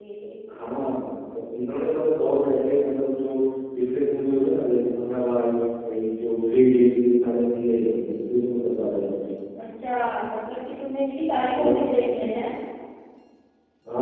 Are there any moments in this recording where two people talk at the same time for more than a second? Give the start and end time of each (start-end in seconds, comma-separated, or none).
none